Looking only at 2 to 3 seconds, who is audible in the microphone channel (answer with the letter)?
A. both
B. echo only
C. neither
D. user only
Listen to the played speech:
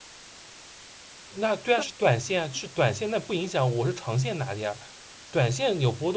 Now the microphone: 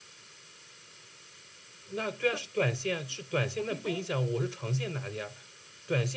B